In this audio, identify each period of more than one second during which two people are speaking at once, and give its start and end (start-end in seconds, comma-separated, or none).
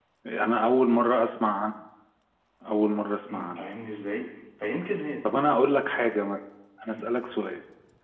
none